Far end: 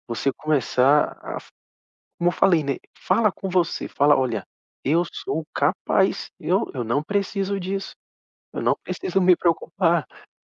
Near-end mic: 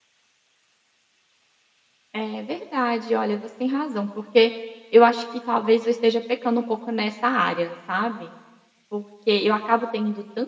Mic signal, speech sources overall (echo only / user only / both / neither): user only